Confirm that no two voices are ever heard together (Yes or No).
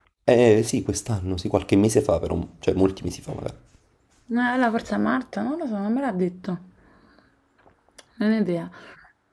Yes